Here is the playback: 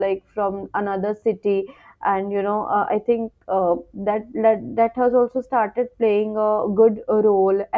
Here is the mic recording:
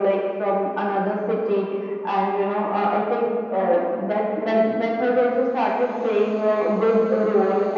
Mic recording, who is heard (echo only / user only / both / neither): echo only